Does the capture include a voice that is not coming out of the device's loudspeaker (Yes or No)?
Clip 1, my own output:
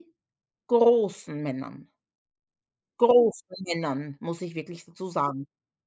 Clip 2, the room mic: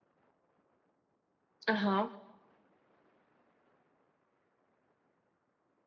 Yes